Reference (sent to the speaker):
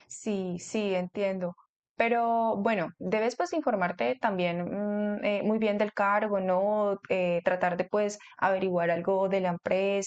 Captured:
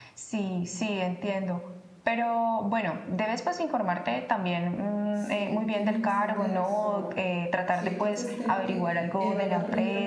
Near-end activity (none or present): present